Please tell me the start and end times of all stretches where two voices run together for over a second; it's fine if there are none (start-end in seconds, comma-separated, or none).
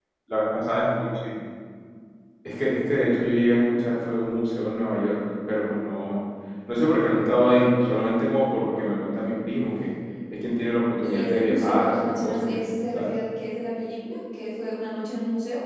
11.0-13.1